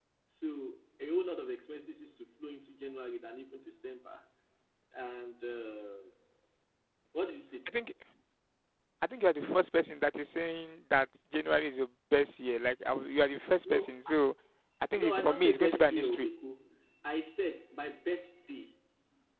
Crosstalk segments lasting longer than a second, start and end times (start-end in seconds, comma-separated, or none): 15.0-16.3